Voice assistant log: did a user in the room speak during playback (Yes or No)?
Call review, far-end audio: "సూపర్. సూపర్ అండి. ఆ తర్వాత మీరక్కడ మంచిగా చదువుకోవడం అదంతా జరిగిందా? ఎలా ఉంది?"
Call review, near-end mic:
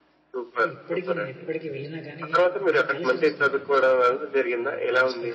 Yes